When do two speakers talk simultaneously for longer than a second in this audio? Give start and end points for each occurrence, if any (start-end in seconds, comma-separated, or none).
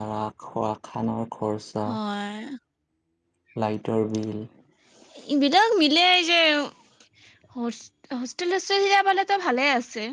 none